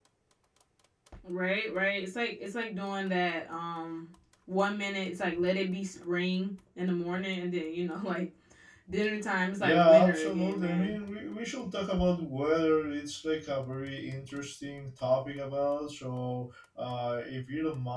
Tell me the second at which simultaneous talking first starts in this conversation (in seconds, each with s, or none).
9.6 s